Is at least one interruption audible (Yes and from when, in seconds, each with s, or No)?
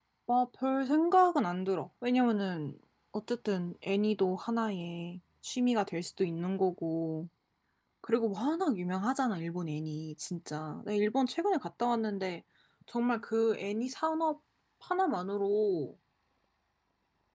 No